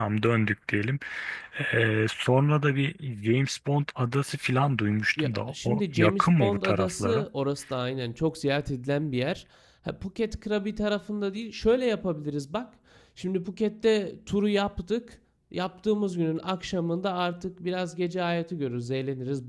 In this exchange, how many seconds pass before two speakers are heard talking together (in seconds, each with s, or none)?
5.2 s